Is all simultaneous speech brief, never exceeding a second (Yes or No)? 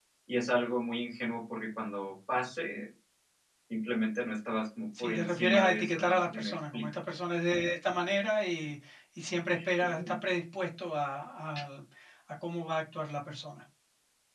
No